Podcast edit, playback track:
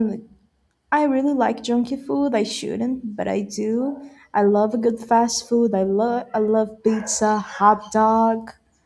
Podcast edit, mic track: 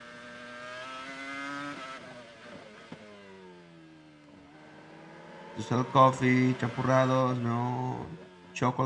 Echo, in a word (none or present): none